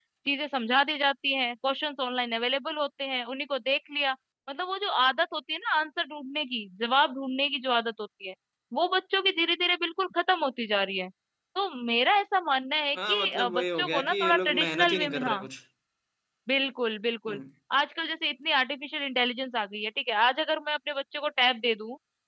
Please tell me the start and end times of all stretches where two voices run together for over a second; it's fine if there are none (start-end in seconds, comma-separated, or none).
13.1-15.4